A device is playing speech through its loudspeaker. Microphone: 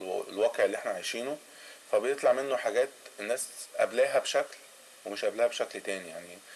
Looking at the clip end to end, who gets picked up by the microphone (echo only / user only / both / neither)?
echo only